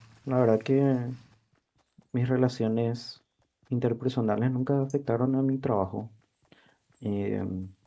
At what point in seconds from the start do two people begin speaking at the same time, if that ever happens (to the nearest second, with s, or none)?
none